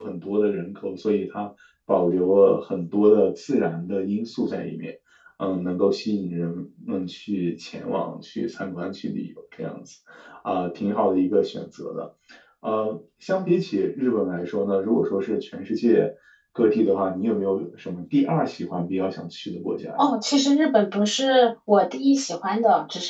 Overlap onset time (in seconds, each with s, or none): none